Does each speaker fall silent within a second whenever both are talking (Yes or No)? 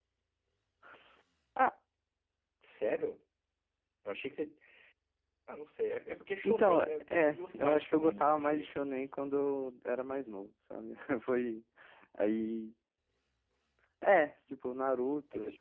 No